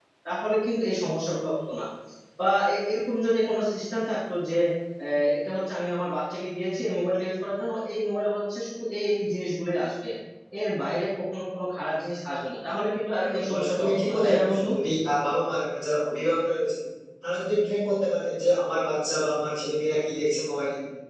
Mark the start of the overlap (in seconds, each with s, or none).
13.2 s